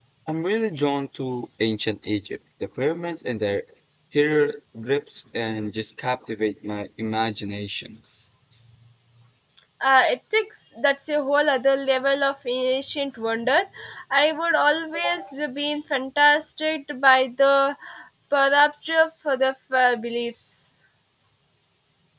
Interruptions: none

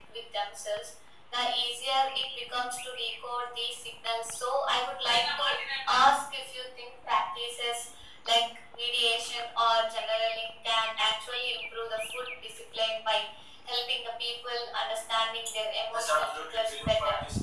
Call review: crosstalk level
present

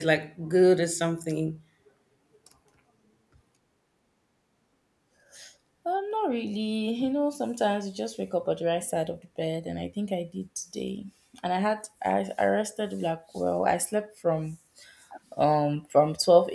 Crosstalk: none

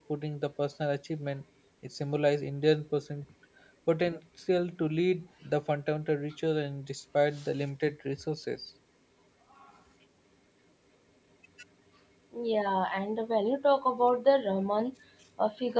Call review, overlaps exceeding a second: none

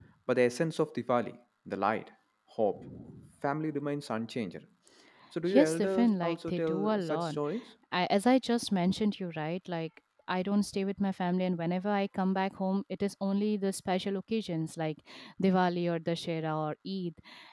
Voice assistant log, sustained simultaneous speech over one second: present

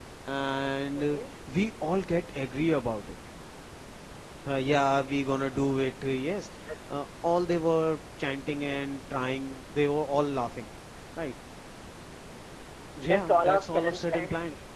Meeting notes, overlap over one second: present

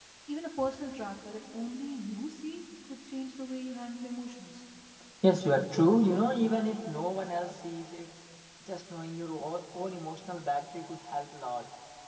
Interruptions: none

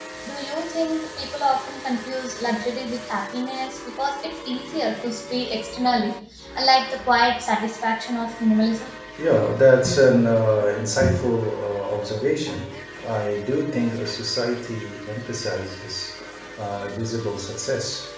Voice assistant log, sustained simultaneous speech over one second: none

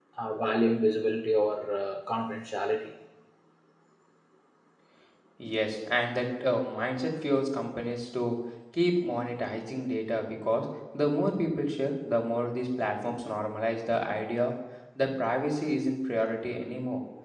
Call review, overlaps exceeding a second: none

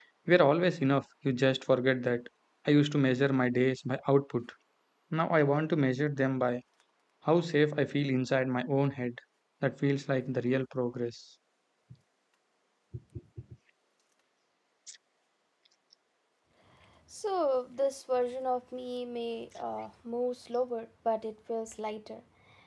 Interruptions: none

